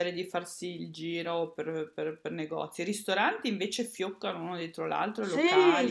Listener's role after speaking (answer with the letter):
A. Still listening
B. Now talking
B